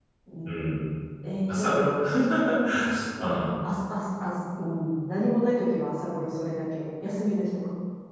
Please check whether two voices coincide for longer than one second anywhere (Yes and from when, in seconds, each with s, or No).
No